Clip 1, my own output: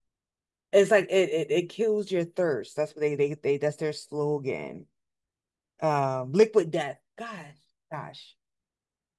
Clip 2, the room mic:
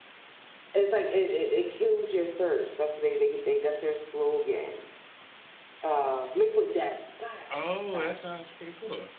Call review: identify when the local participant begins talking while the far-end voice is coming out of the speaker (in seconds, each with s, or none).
7.5 s